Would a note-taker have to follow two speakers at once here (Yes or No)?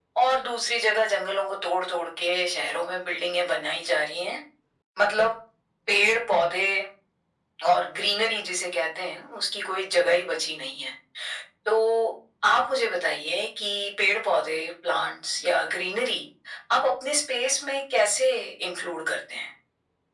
No